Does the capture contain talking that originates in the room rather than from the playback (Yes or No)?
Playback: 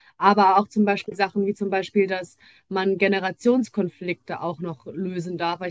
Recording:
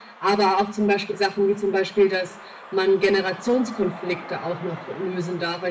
No